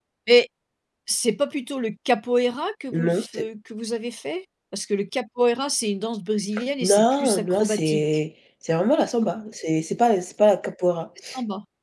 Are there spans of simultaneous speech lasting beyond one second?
Yes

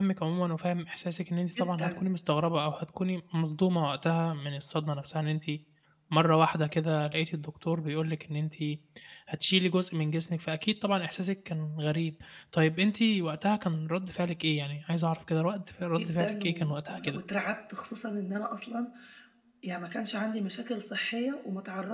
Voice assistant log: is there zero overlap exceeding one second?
No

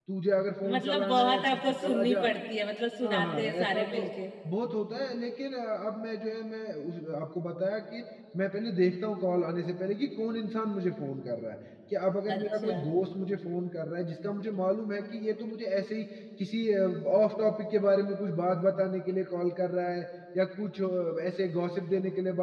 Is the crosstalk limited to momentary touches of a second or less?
No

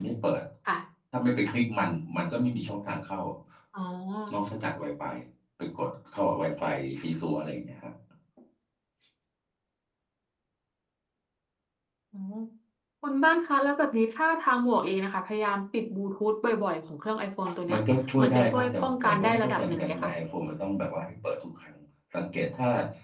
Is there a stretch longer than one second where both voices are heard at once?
Yes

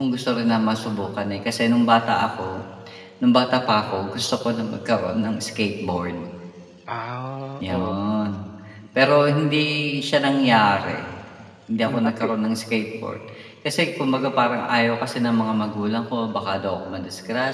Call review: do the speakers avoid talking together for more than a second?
Yes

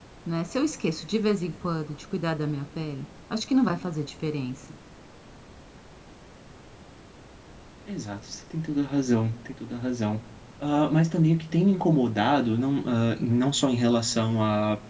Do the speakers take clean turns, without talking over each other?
Yes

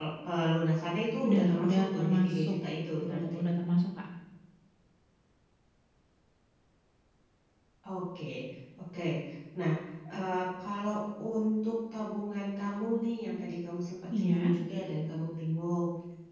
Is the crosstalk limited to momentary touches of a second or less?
No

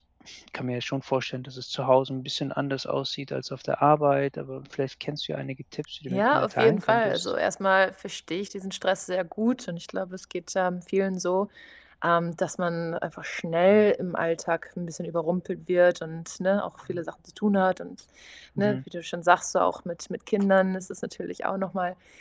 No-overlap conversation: No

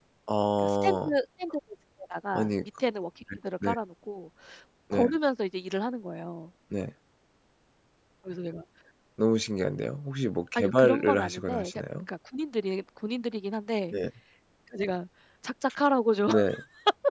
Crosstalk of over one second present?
Yes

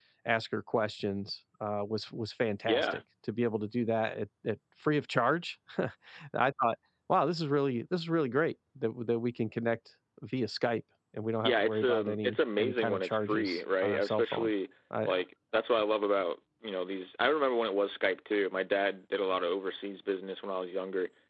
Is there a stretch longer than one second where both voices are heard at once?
Yes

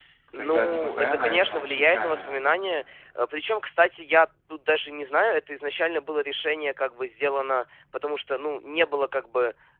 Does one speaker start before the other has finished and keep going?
Yes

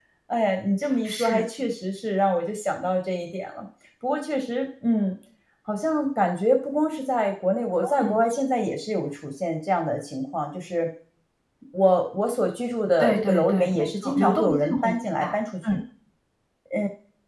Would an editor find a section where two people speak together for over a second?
Yes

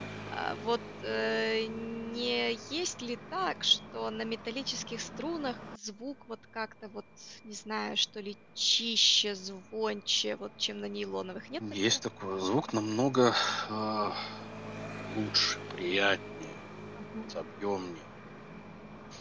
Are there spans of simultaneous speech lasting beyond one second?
No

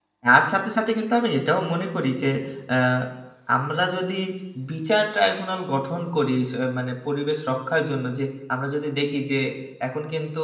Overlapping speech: No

